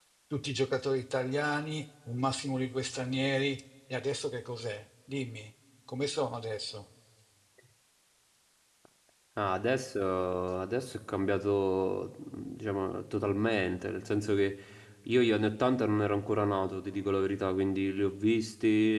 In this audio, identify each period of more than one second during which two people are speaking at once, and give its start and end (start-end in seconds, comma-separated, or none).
none